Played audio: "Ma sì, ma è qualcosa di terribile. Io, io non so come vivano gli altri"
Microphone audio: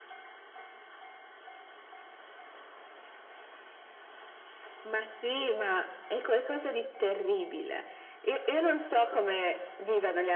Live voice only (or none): none